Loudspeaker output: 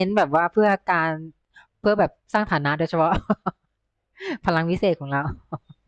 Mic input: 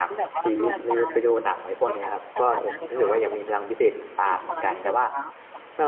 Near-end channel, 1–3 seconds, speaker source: both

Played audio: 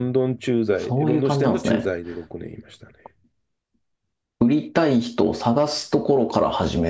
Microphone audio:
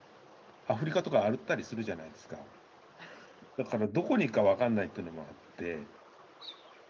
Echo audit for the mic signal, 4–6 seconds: user only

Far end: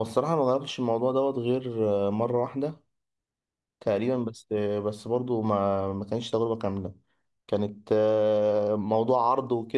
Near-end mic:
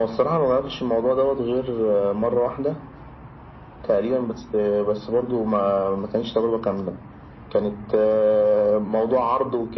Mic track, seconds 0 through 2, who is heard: echo only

